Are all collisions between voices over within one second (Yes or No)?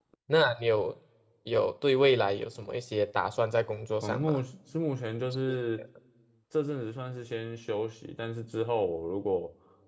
Yes